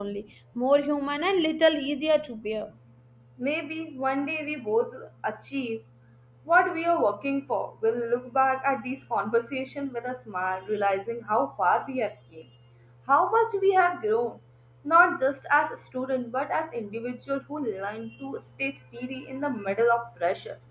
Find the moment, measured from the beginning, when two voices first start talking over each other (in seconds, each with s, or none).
none